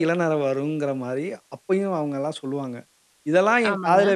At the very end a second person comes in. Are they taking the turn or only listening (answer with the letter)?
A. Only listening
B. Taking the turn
A